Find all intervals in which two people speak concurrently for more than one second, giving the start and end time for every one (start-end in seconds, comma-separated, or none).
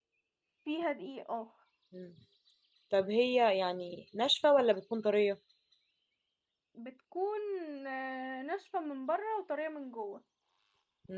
none